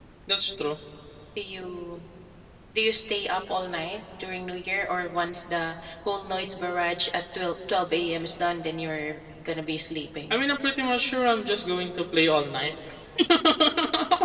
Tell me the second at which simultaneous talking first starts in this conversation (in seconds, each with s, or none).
none